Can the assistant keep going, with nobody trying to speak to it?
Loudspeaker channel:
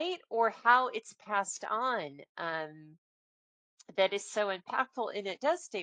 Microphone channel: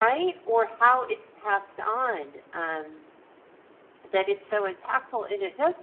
Yes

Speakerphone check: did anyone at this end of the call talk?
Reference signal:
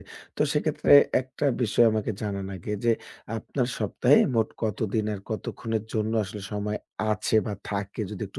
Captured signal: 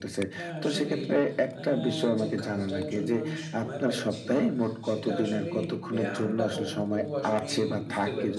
Yes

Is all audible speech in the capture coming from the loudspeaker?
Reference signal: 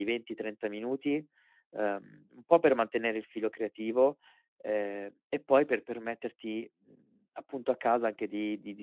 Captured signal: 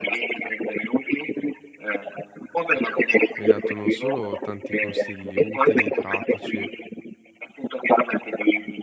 No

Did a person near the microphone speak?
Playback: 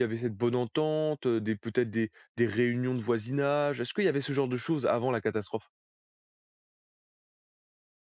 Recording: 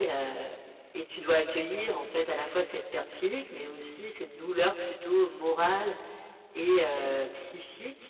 Yes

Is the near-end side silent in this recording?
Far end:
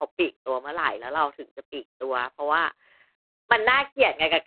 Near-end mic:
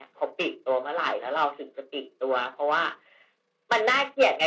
Yes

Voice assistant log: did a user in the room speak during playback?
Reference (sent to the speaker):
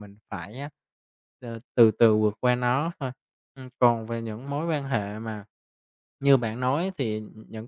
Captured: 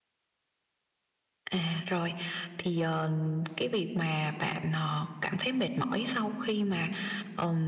Yes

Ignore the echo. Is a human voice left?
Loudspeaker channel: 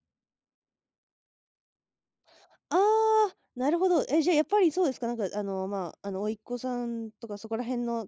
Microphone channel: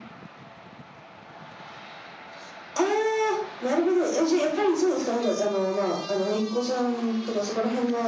No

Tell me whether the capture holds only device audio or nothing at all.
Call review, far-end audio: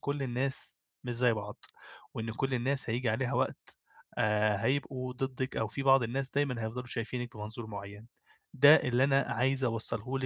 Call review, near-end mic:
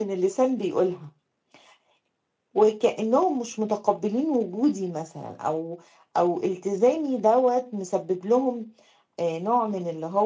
No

